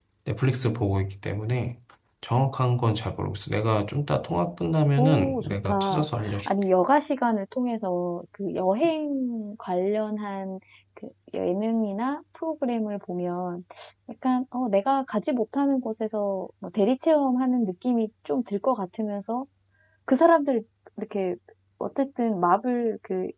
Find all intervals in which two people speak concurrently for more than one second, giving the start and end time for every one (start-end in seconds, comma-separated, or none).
5.0-6.5